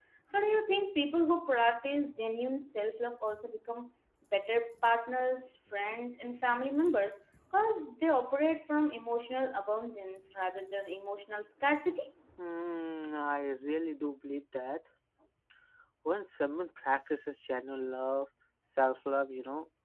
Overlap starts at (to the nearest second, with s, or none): none